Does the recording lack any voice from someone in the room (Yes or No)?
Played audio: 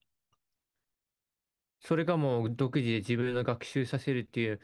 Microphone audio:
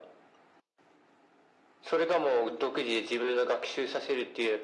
Yes